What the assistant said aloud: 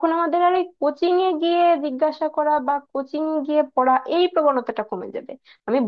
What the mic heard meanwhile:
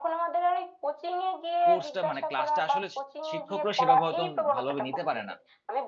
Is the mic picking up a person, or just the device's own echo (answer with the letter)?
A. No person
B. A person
B